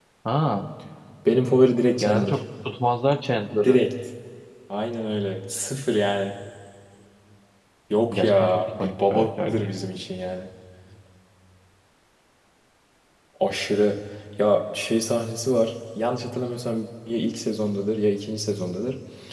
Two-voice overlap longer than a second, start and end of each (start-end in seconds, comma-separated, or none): 8.1-9.7